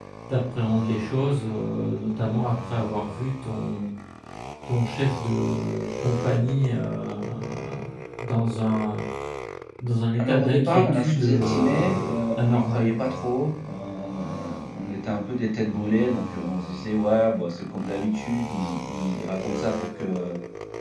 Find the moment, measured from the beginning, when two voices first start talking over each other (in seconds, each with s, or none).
10.2 s